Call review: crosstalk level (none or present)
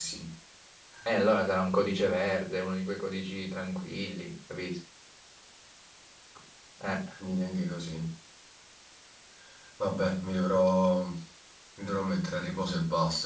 none